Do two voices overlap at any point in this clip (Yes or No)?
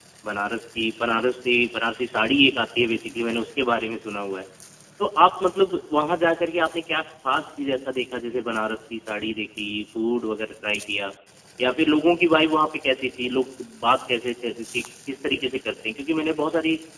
No